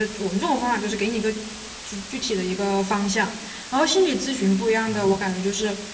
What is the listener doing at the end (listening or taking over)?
listening